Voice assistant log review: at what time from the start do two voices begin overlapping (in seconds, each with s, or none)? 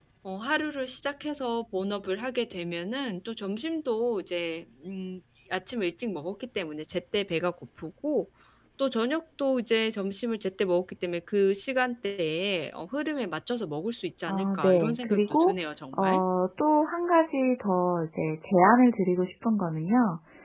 14.3 s